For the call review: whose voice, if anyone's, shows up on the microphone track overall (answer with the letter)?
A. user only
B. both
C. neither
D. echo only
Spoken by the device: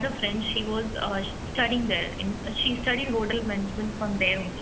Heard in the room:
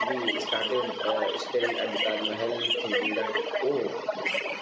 B